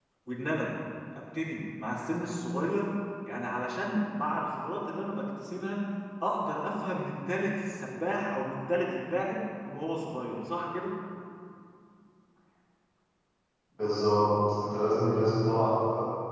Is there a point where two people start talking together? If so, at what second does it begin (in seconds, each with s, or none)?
none